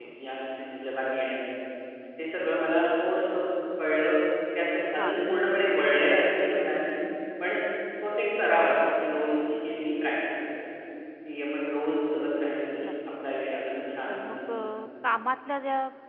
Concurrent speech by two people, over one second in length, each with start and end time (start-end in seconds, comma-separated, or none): none